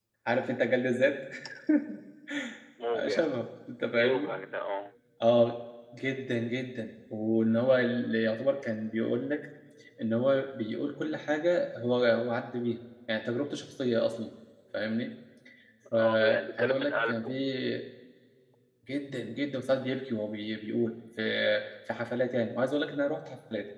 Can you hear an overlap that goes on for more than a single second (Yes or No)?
Yes